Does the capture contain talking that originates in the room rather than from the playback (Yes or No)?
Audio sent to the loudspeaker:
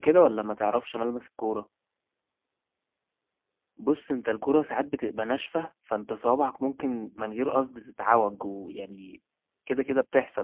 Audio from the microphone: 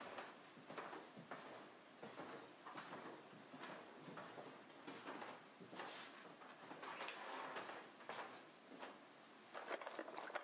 No